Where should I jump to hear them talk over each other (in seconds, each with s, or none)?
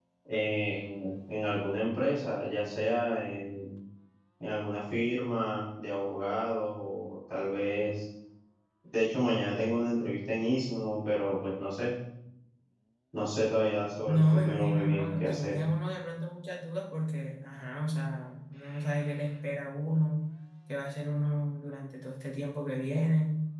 14.1 s